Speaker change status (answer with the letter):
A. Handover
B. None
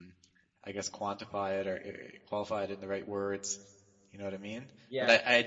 B